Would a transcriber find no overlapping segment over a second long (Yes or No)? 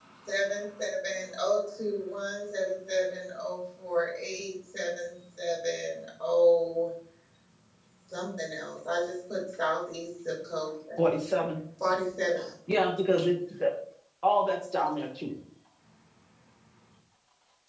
Yes